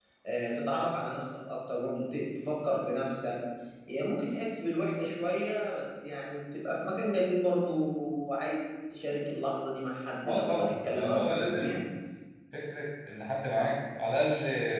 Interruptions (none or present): present